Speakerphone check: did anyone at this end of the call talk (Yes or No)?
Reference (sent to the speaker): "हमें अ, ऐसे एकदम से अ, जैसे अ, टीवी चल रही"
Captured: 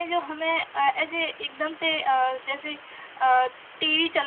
No